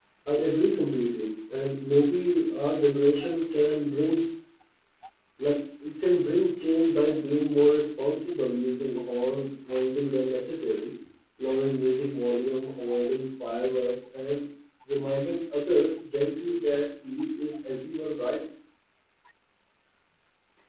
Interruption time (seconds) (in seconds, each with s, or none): none